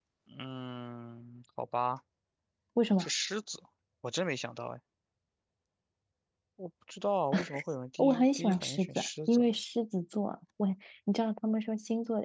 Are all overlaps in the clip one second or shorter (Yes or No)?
No